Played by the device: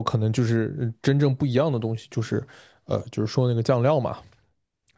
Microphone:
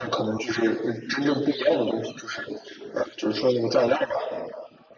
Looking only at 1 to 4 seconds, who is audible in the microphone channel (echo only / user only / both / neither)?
echo only